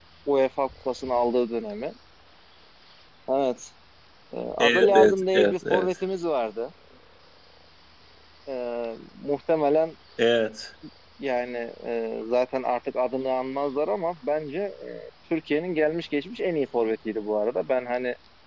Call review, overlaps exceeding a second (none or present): present